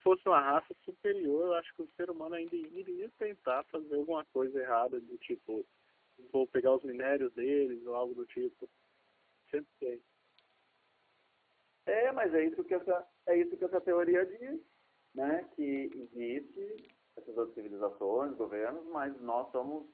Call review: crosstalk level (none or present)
none